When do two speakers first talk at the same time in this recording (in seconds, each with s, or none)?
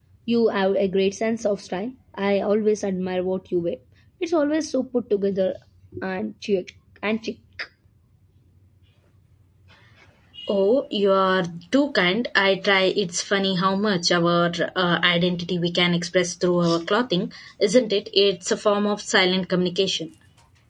none